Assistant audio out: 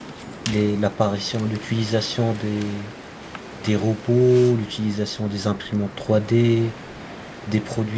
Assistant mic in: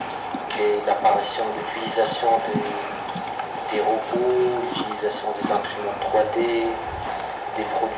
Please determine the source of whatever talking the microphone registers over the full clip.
echo only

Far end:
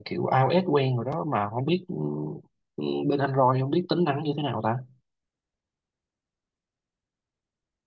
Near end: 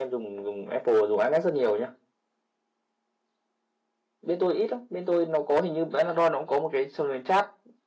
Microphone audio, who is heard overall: user only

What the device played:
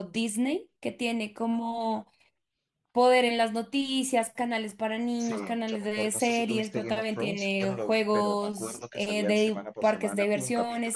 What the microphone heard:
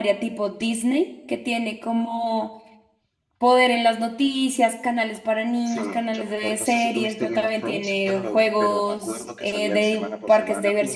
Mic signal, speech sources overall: echo only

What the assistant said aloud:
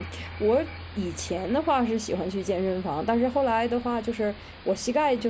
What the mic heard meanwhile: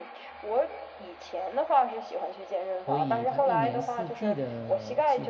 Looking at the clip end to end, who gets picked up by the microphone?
both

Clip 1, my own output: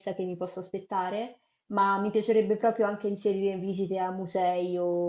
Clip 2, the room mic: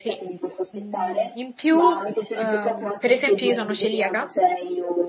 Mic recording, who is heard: both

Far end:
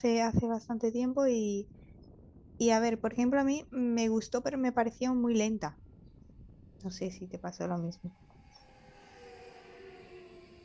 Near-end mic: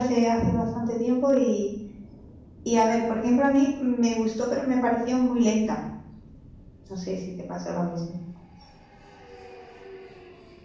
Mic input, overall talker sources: echo only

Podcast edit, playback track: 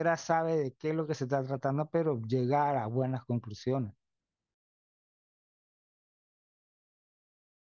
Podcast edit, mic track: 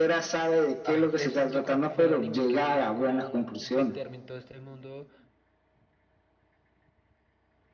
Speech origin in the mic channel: both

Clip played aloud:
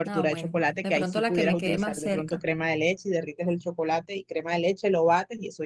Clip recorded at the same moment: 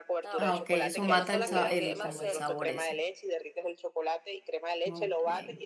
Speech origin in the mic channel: both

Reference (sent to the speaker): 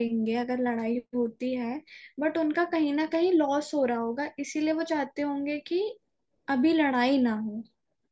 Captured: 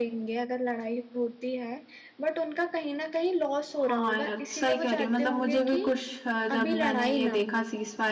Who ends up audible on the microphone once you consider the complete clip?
both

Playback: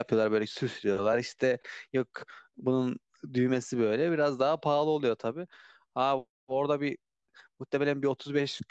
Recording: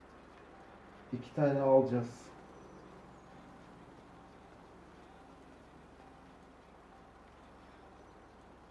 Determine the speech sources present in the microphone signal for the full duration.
user only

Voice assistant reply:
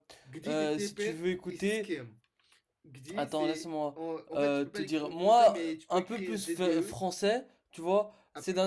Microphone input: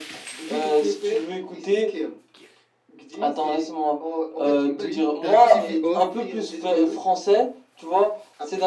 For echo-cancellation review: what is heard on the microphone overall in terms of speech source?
both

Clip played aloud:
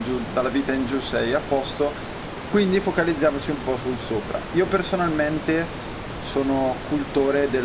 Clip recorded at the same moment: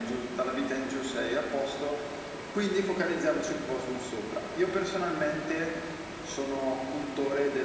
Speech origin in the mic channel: echo only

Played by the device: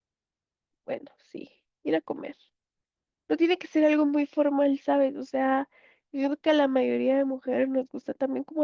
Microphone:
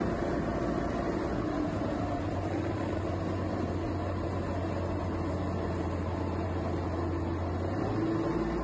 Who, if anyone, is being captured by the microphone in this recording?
neither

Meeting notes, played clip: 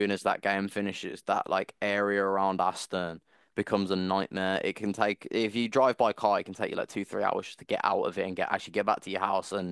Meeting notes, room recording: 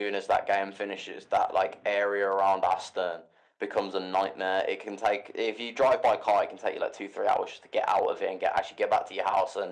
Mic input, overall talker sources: echo only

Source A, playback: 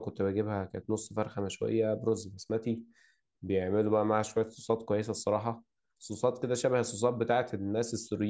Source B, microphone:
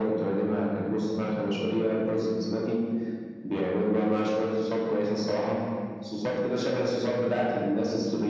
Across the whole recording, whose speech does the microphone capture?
echo only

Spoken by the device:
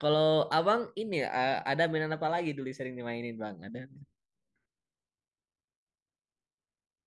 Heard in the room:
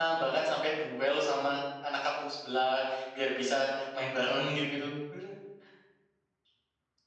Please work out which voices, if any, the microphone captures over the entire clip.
user only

